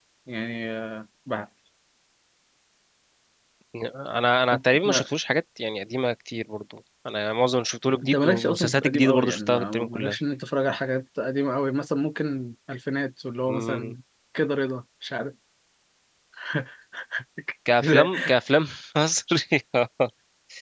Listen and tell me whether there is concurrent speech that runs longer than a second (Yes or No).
Yes